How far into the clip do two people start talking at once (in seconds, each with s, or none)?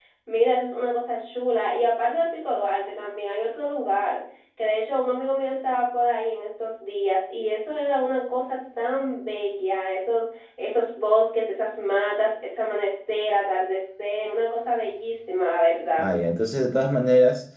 none